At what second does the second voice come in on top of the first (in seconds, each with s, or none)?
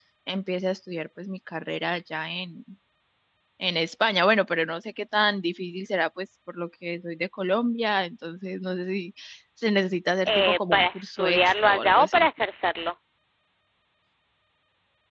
10.2 s